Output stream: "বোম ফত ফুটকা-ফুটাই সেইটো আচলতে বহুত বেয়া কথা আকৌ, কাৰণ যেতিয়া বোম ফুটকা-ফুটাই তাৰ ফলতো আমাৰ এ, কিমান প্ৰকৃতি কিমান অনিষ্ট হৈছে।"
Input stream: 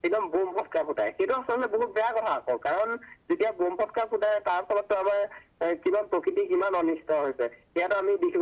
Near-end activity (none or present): none